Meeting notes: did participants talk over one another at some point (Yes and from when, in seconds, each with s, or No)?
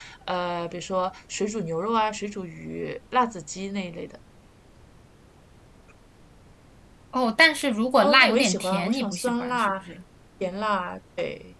Yes, from 8.0 s